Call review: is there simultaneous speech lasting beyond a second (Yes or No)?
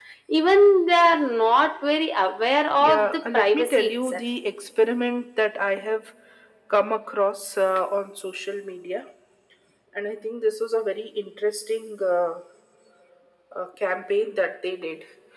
Yes